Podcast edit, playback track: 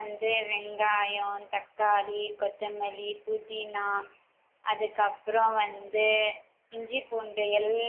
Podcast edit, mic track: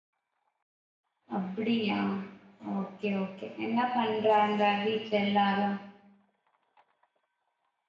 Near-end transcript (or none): அப்டியா ஓகே ஓகே என்ன பண்றாங்க வீட்ல எல்லாரு